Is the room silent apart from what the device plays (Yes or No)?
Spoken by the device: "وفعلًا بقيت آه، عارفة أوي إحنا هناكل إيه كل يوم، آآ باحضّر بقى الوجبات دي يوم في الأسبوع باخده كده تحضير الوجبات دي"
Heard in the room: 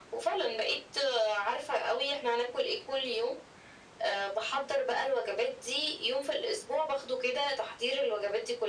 Yes